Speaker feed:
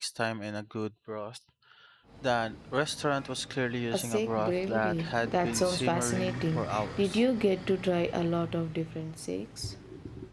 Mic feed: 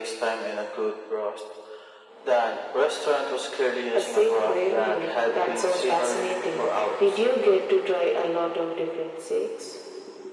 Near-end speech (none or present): none